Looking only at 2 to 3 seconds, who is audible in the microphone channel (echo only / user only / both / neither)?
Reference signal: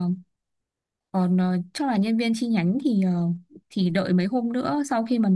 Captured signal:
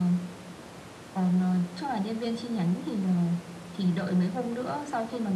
echo only